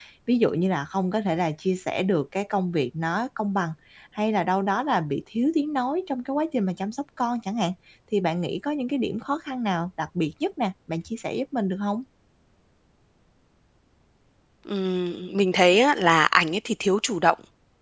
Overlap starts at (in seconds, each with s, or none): none